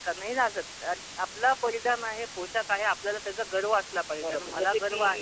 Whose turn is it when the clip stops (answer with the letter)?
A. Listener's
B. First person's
A